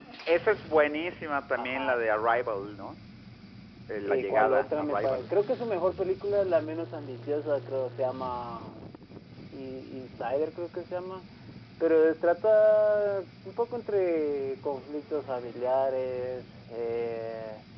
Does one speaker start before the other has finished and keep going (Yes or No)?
Yes